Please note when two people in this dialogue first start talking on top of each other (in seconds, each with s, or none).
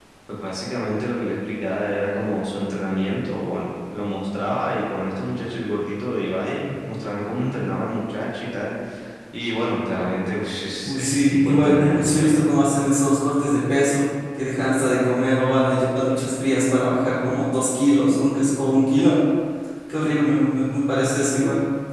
10.8 s